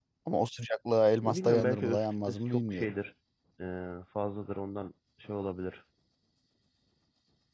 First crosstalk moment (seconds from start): 1.2 s

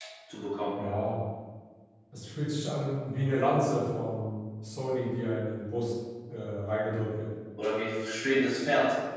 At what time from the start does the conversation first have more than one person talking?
none

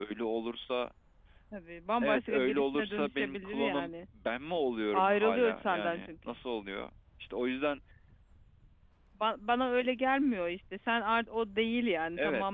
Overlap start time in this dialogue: 2.0 s

